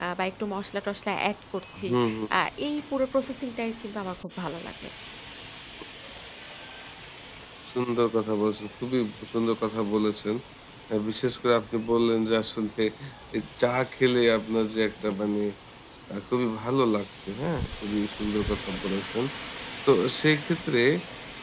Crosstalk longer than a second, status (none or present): none